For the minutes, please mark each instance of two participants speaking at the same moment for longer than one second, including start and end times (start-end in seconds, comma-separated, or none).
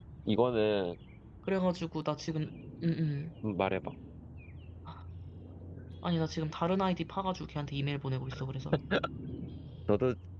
none